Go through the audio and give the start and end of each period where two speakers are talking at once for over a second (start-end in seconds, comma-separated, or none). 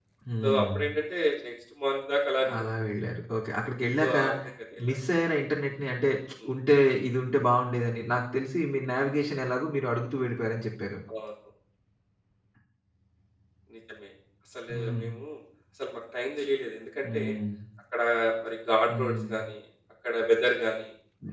none